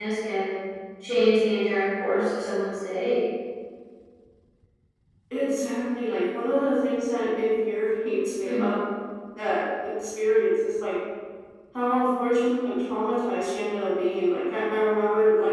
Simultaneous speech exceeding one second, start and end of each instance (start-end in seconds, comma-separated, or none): none